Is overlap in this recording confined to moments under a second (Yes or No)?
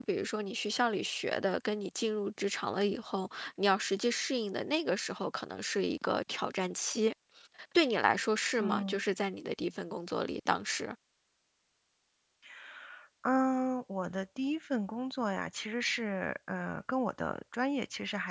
Yes